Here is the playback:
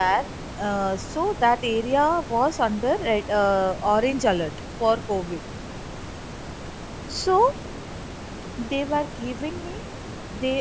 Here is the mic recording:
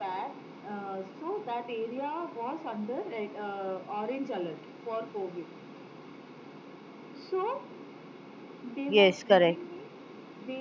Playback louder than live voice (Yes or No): No